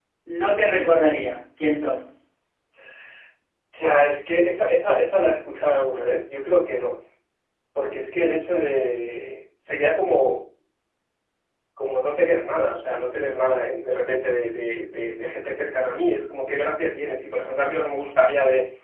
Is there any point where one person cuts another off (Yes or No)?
No